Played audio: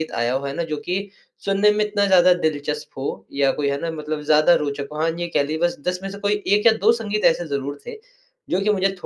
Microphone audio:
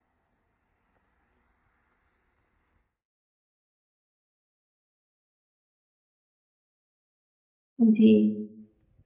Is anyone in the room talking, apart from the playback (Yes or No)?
Yes